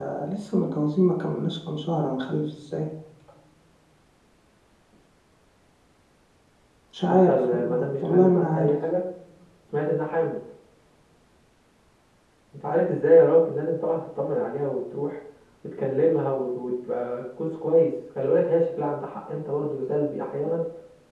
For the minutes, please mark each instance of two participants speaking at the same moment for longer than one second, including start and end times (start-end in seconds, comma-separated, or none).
7.2-8.7